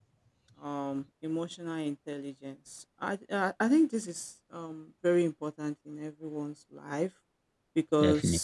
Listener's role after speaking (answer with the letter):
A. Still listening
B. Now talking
A